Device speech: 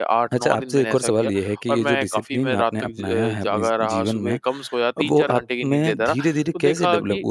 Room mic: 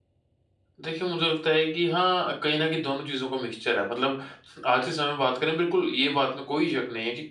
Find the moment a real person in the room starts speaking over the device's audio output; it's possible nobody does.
1 s

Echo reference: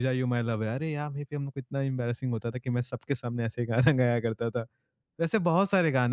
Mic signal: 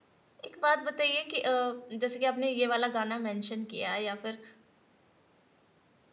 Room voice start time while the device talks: 0 s

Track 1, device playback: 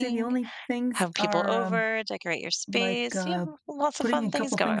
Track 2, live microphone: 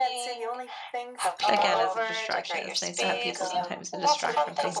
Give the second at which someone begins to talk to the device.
1 s

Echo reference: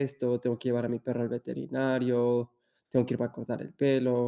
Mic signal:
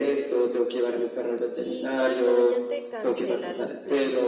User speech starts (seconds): 2 s

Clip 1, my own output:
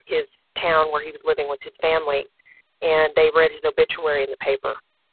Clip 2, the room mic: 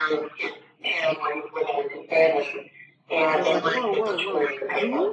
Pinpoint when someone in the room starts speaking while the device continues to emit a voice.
3 s

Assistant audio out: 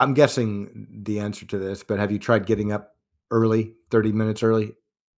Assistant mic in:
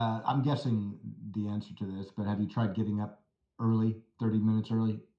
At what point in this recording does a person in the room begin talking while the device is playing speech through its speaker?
none

